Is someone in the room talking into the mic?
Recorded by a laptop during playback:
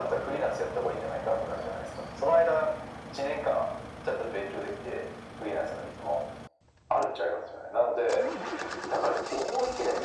No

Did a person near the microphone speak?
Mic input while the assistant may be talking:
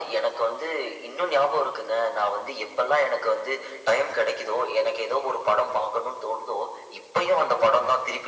No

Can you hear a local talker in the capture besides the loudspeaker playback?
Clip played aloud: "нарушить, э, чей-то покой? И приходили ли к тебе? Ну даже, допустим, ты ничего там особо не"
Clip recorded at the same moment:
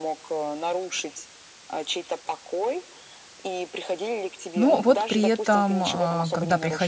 Yes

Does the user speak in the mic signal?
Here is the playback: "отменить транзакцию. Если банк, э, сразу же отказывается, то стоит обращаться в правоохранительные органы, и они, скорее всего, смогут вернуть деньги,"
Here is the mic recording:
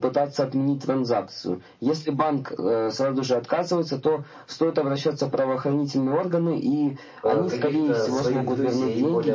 Yes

